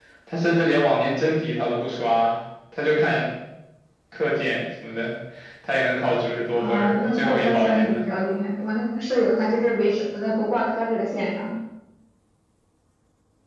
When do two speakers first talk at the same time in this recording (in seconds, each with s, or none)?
6.6 s